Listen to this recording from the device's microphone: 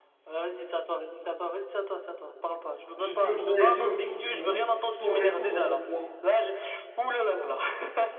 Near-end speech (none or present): present